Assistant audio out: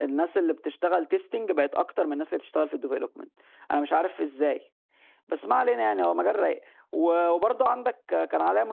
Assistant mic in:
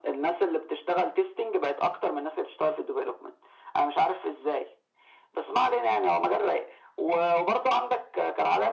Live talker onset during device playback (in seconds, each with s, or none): none